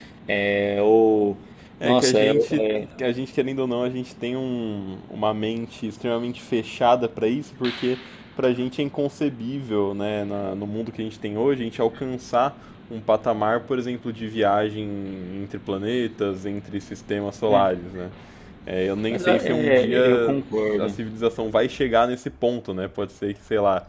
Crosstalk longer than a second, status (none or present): present